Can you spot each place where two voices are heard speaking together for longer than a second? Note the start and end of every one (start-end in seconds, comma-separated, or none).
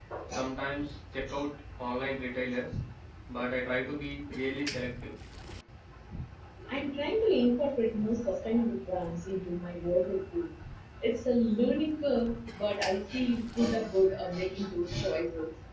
none